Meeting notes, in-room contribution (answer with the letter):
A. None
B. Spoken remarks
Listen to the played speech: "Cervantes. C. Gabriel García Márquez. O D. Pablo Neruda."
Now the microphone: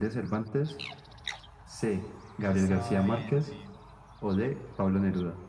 B